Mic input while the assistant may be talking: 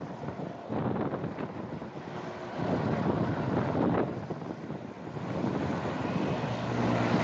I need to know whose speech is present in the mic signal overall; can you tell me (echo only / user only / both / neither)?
neither